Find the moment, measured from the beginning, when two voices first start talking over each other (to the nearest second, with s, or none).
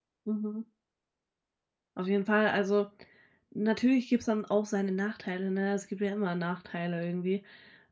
none